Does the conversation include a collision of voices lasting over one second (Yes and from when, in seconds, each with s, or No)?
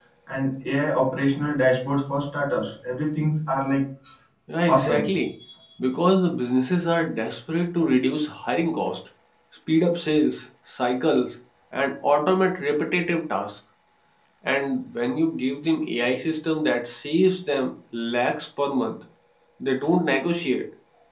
No